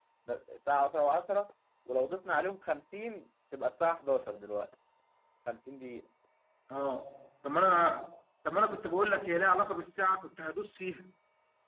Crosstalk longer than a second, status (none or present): none